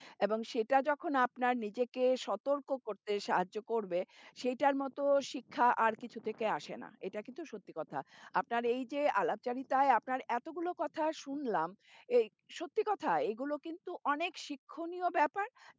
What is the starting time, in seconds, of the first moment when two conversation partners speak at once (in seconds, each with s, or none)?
none